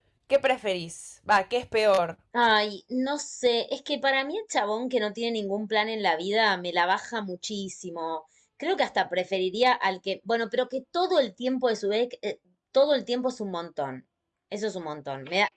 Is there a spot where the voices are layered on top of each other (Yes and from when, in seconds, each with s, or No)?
No